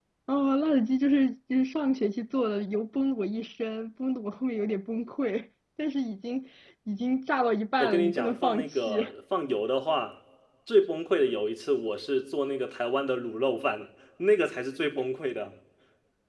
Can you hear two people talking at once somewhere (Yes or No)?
Yes